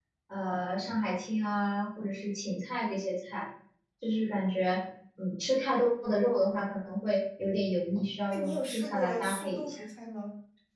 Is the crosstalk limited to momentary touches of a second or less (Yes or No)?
No